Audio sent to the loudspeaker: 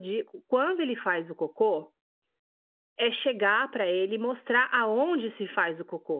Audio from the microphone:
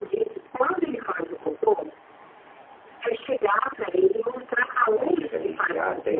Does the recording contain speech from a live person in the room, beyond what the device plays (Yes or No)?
Yes